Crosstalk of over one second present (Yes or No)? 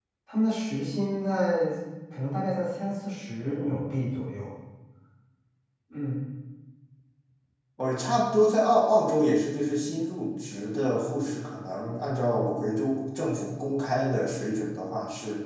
No